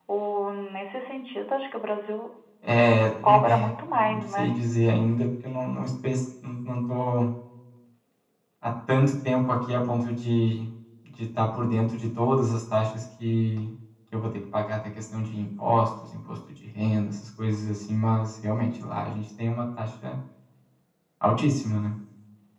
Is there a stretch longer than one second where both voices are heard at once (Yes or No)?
Yes